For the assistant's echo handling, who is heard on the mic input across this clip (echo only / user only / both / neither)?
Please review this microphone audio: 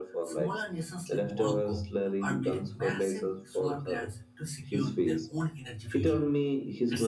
both